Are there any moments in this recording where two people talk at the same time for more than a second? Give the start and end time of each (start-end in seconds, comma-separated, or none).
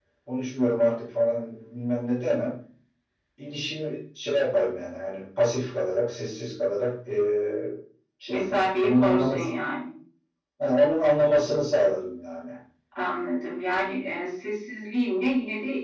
8.3-9.5